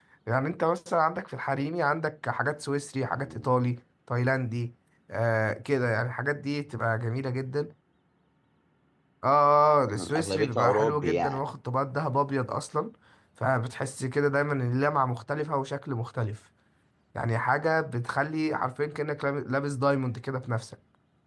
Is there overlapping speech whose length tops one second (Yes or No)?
Yes